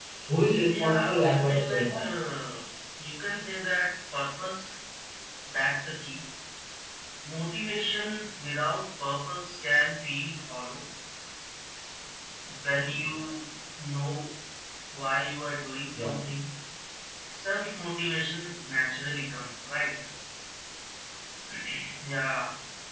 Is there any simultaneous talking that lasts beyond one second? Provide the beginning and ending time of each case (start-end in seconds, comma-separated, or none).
0.7-2.0